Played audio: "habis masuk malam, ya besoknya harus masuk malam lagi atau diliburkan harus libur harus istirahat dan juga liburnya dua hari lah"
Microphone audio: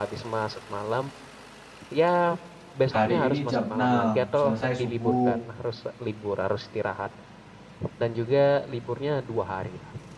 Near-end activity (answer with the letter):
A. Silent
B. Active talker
B